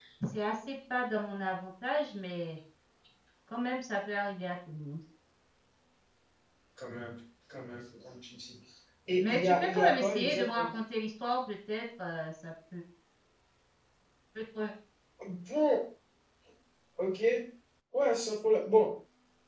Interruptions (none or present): present